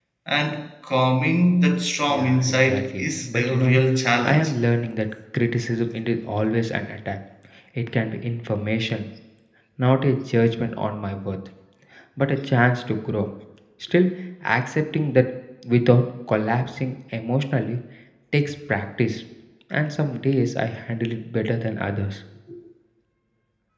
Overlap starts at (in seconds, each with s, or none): 2.1 s